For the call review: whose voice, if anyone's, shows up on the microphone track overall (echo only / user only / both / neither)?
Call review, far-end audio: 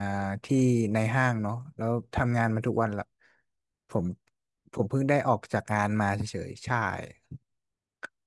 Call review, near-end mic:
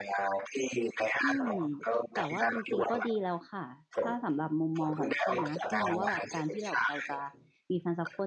both